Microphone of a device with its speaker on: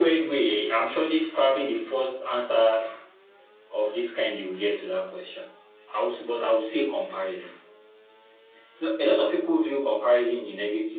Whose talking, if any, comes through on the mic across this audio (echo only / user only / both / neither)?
echo only